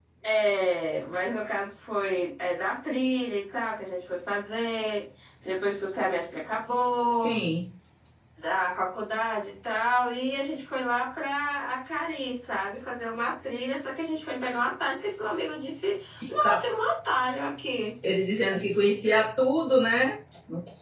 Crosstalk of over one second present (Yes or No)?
No